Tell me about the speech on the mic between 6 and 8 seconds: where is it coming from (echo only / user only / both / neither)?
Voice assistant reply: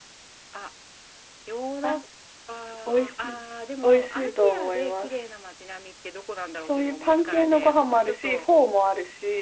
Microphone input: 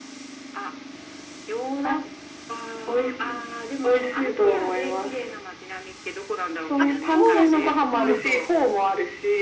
both